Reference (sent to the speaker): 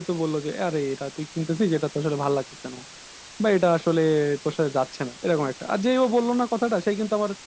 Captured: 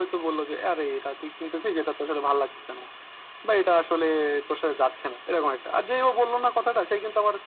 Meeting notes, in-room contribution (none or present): none